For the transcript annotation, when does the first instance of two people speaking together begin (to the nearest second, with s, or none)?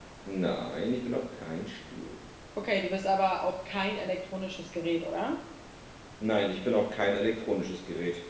none